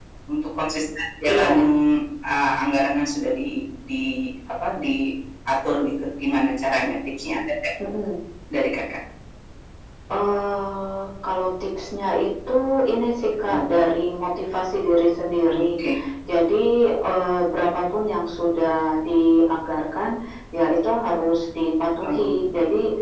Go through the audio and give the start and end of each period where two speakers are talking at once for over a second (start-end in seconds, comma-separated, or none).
none